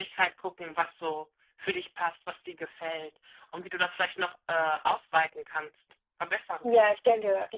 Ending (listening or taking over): taking over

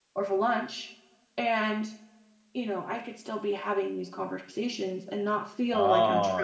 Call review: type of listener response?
taking over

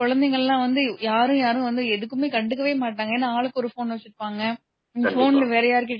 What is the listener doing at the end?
listening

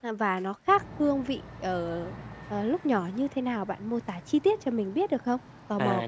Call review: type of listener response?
taking over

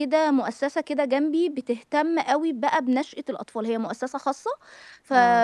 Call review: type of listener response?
listening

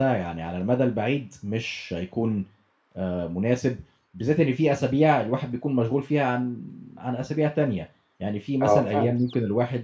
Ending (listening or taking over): listening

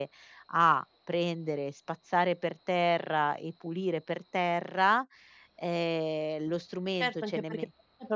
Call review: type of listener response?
taking over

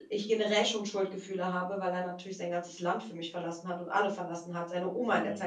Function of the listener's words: listening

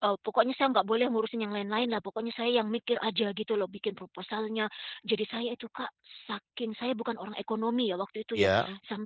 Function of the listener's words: listening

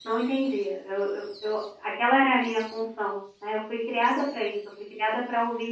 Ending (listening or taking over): listening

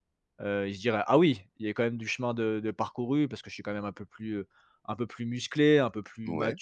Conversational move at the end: listening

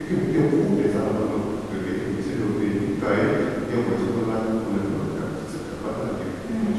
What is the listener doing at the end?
taking over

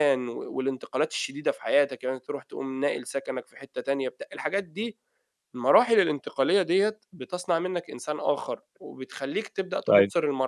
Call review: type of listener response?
listening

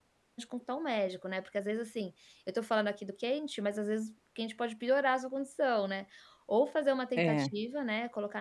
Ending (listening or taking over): listening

